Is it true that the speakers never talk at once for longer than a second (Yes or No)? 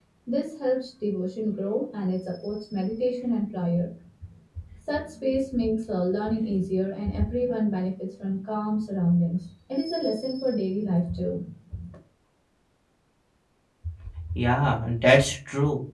Yes